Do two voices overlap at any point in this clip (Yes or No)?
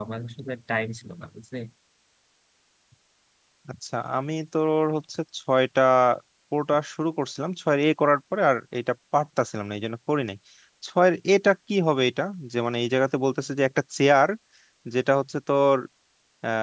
No